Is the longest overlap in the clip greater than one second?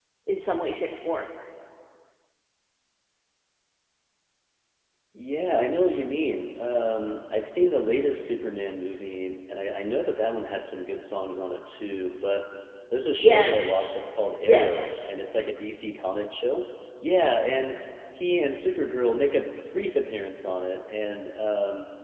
No

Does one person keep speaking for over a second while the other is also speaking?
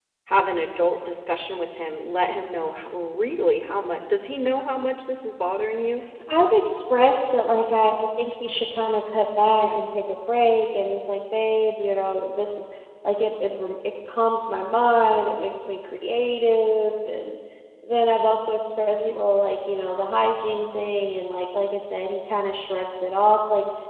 No

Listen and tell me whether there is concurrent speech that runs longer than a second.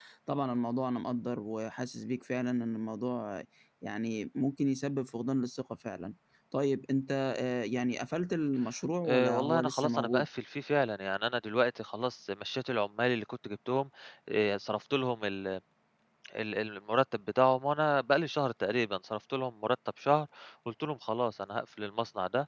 Yes, from 9.0 s

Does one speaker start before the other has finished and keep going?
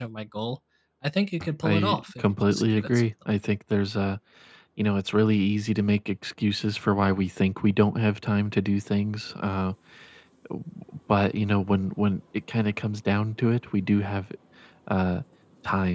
Yes, from 1.6 s

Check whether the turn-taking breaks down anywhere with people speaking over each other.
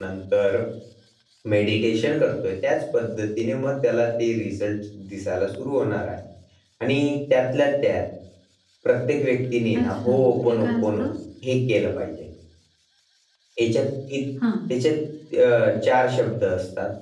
Yes, from 9.8 s

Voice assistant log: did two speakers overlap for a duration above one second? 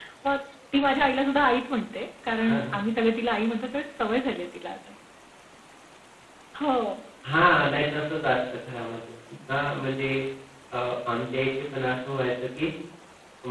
No

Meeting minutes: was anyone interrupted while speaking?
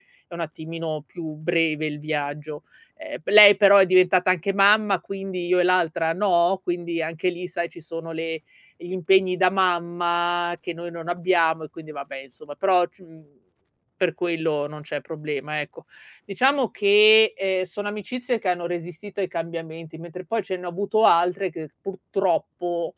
No

